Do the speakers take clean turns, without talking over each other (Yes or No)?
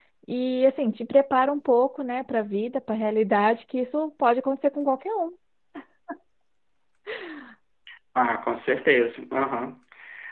Yes